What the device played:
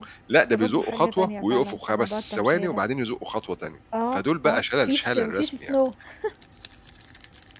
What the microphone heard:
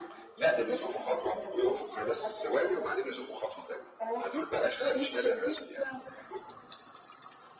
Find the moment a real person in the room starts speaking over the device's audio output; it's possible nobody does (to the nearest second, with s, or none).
none